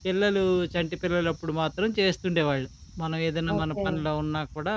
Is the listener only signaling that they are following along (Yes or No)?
Yes